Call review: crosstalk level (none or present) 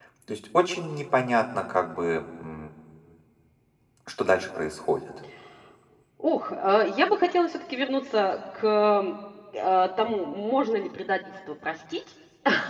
none